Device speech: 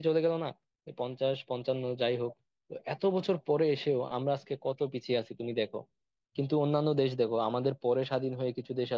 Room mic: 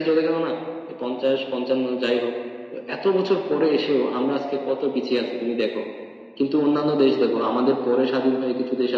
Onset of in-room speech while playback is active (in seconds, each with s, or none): none